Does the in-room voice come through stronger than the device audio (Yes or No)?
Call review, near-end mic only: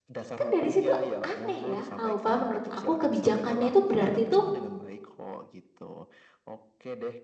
Yes